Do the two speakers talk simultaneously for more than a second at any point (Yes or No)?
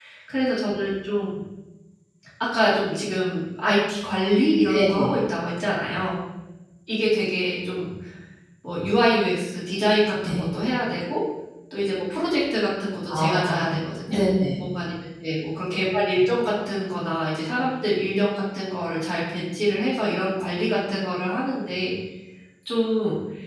No